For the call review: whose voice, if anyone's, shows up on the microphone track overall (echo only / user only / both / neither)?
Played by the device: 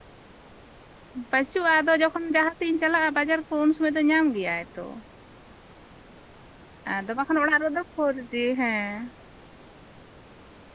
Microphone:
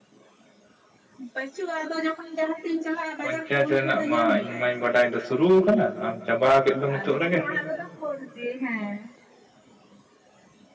both